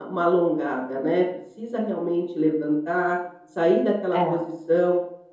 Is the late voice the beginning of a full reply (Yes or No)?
No